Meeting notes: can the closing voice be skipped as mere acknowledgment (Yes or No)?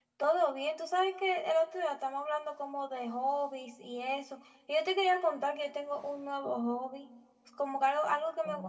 Yes